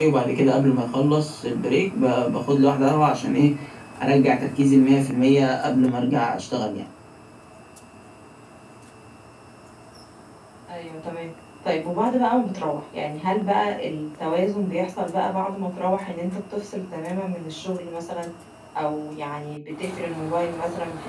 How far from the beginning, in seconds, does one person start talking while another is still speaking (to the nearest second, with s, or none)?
none